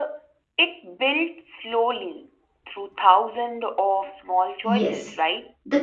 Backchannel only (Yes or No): No